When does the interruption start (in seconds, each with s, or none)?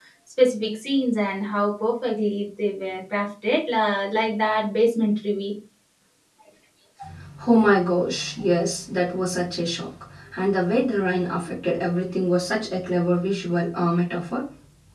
none